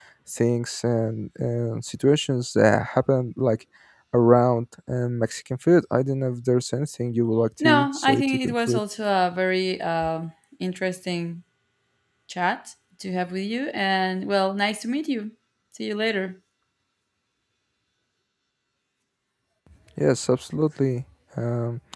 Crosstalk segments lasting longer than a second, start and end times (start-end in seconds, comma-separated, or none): 7.6-8.8